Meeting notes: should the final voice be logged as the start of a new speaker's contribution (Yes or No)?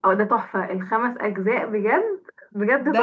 Yes